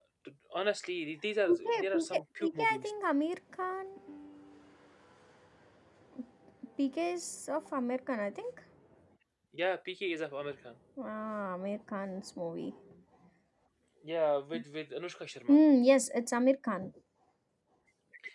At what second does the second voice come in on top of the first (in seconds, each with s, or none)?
1.4 s